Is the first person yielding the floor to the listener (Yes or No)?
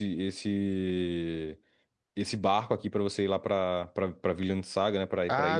Yes